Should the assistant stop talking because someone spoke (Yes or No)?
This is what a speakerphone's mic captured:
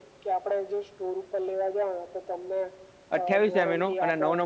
Yes